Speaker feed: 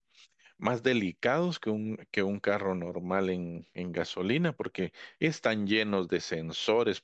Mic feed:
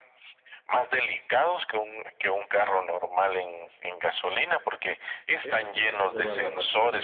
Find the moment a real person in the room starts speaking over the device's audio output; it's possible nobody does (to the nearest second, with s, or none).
5 s